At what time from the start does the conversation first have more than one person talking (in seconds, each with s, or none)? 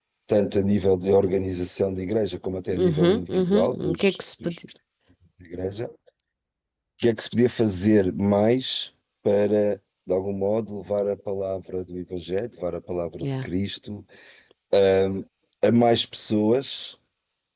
2.7 s